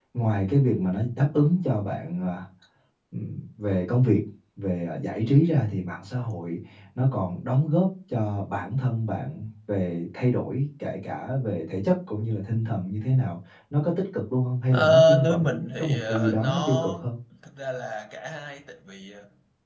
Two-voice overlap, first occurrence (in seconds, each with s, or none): 14.7 s